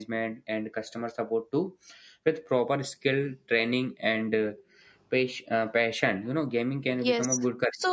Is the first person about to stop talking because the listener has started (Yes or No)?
Yes